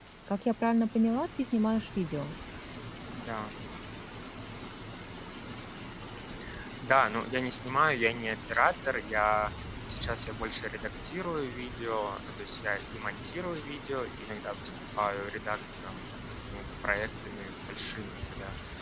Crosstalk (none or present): none